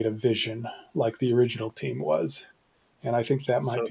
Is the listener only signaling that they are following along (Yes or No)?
Yes